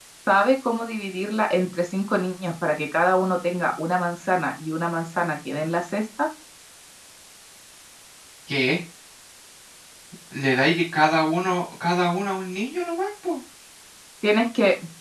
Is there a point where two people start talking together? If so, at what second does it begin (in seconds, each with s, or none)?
none